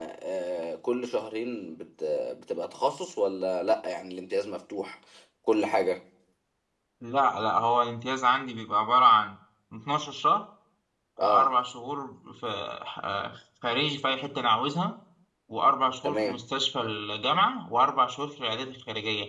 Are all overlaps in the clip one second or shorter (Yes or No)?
Yes